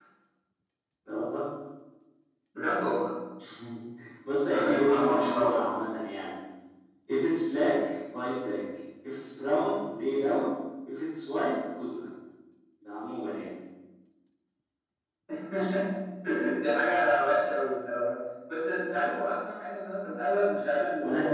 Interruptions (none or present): present